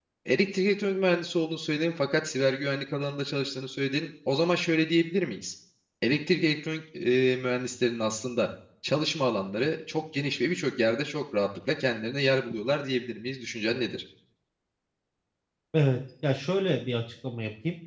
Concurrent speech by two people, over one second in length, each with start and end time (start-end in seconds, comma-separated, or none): none